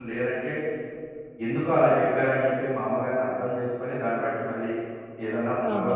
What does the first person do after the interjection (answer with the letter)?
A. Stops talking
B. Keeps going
A